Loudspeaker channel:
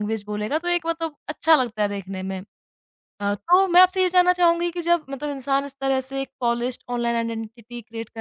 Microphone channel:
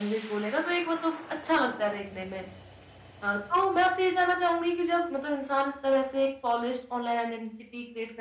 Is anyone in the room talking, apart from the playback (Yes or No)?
No